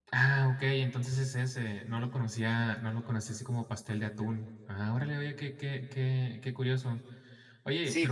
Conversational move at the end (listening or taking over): taking over